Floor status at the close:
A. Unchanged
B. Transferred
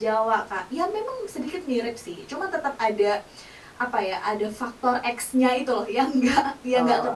A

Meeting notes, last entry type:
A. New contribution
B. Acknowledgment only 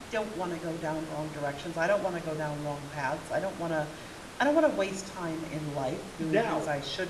B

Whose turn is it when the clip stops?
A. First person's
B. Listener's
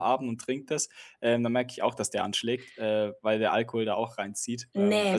B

